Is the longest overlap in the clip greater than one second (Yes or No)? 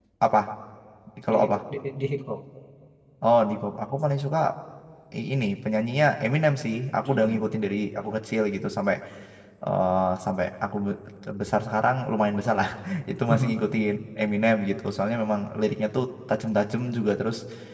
No